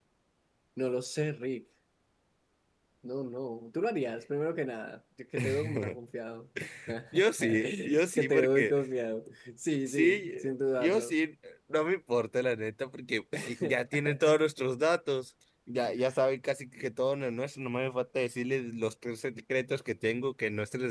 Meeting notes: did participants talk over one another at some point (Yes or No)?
Yes